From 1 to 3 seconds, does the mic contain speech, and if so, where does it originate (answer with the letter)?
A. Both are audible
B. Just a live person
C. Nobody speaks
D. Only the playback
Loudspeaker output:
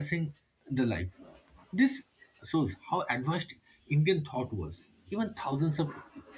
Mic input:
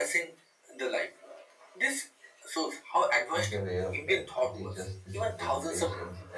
D